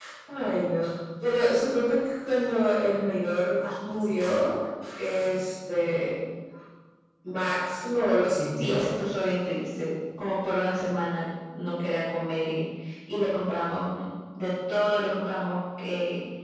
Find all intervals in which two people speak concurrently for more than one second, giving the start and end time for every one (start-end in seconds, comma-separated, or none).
none